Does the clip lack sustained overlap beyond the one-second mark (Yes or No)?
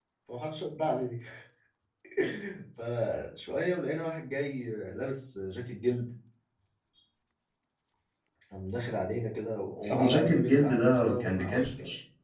No